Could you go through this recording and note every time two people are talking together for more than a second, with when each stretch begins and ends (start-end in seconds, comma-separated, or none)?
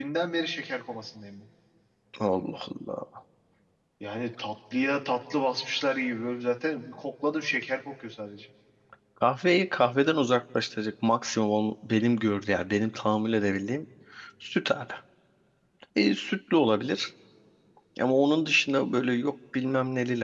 none